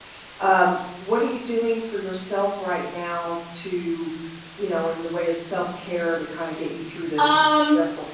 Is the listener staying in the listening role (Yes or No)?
No